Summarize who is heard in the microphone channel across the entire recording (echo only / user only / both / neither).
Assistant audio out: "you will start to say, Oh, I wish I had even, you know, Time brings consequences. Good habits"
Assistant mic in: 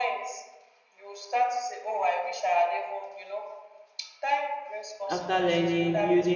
both